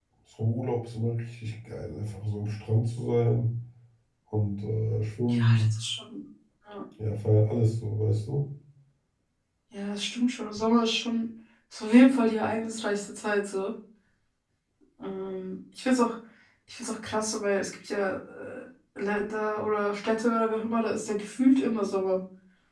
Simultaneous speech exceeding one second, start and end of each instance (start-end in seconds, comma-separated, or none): none